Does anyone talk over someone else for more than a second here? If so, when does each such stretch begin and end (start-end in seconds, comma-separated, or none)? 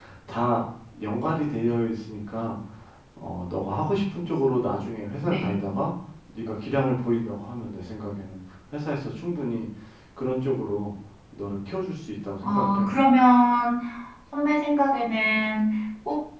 none